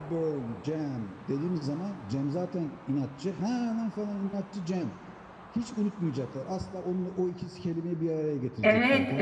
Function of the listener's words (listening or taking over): taking over